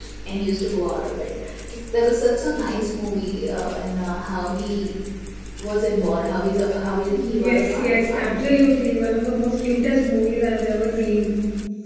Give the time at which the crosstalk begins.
7 s

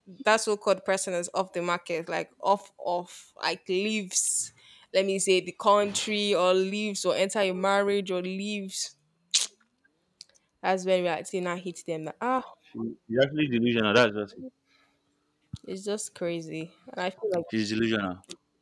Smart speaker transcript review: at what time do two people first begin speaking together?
none

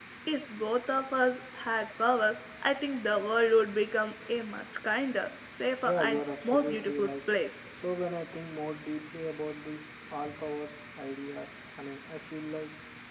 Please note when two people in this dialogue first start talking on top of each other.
6 s

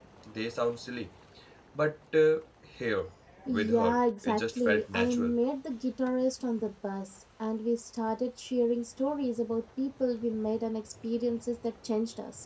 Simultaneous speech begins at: 4 s

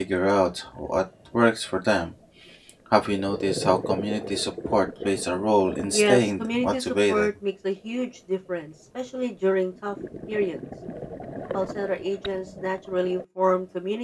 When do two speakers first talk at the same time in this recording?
6 s

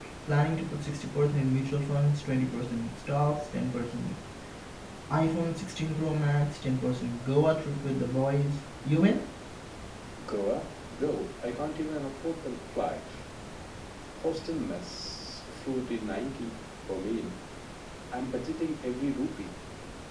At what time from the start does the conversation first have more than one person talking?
none

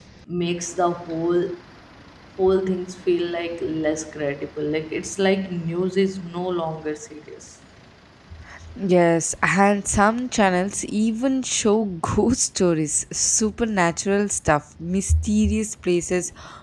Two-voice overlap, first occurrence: none

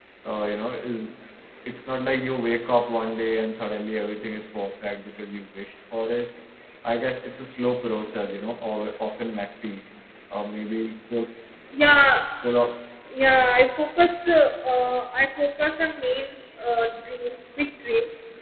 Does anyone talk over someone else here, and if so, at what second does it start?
none

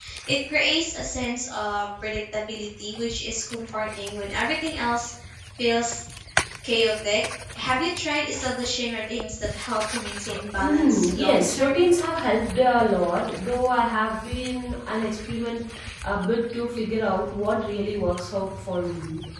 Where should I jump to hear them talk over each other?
11 s

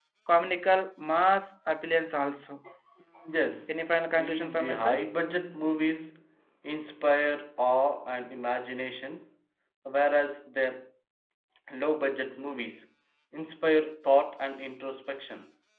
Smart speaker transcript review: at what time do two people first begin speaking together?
4 s

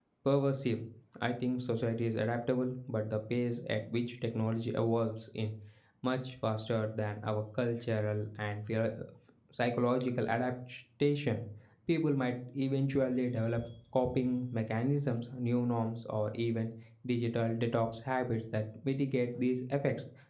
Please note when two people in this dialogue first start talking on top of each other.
none

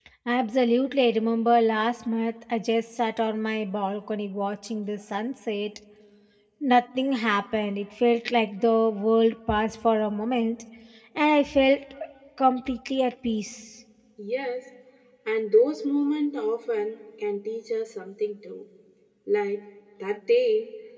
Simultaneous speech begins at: none

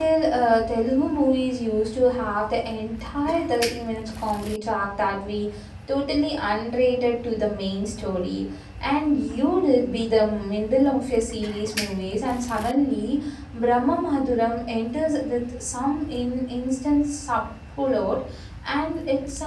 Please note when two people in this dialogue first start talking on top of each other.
none

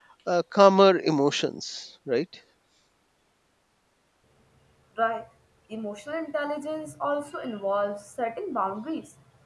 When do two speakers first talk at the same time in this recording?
none

